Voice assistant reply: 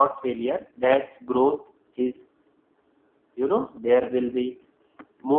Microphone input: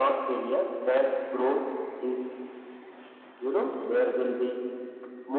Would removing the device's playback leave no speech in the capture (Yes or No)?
Yes